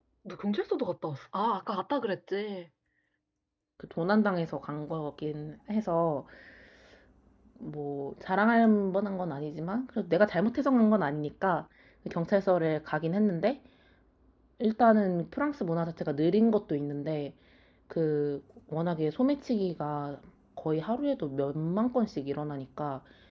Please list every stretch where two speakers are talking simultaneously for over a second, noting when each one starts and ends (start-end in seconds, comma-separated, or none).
none